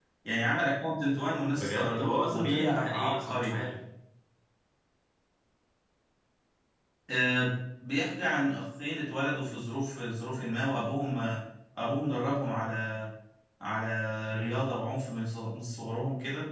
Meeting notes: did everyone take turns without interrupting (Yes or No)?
No